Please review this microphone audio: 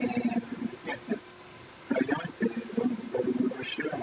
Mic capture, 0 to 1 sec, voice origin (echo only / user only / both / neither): echo only